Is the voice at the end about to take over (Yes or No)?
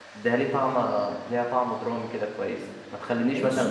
Yes